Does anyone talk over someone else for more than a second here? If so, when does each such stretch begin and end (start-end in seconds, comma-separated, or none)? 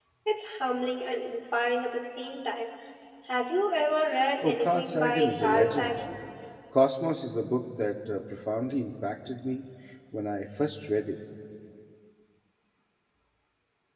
4.4-5.9